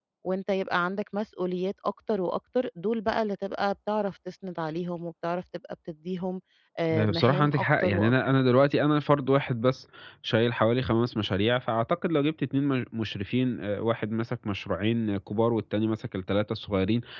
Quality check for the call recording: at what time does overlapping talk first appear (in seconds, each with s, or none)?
6.9 s